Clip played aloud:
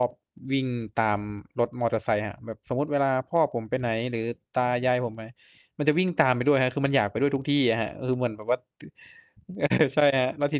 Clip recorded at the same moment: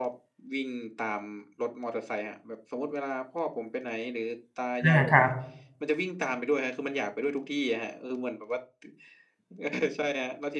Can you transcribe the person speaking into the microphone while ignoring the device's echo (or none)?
อา ครับ